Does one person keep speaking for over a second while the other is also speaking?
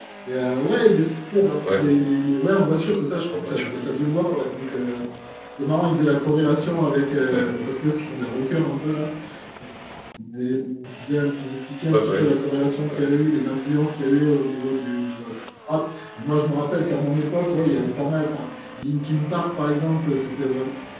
No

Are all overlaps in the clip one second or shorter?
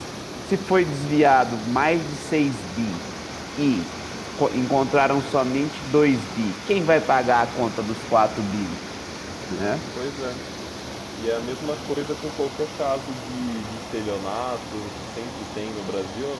Yes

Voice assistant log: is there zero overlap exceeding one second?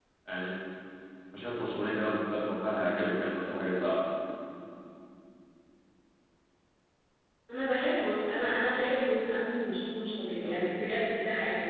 Yes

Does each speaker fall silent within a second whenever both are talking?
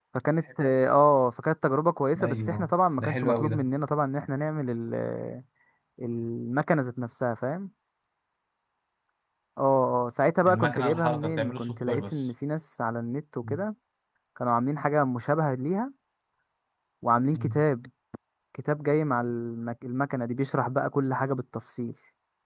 No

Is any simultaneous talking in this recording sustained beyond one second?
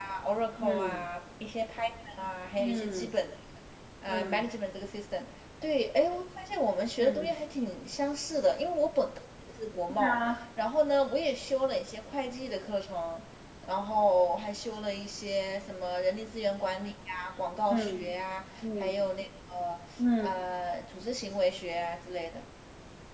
No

